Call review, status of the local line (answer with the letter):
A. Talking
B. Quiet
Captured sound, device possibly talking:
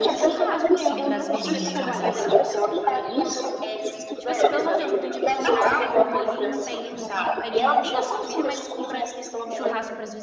A